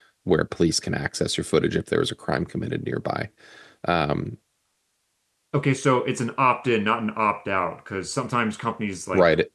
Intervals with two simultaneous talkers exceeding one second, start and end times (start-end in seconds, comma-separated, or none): none